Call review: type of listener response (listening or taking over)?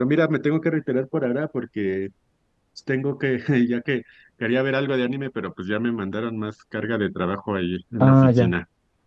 taking over